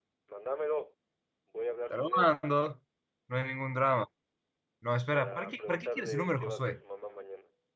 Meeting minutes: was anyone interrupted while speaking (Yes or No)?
Yes